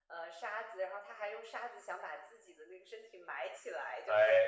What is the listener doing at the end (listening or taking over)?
listening